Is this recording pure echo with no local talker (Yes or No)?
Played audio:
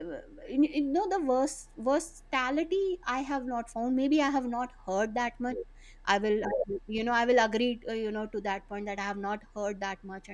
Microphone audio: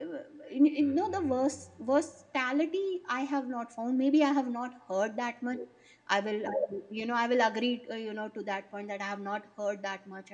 No